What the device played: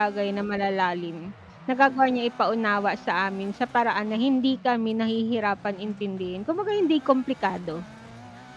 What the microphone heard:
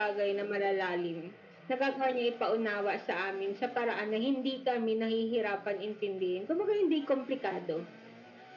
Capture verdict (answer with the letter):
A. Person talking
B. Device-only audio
B